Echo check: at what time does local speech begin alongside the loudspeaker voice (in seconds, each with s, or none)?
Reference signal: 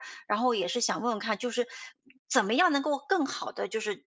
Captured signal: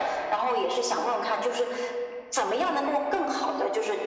none